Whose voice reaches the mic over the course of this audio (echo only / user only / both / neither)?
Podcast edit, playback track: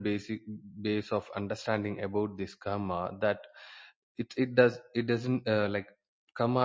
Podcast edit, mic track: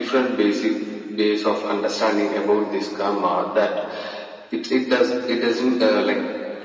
echo only